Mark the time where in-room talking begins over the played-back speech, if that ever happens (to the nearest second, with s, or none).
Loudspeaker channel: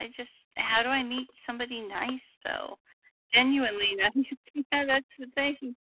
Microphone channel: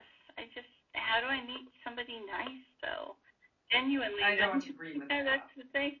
4 s